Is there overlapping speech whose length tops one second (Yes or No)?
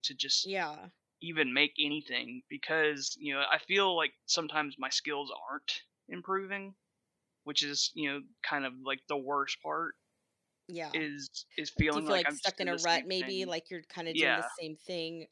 Yes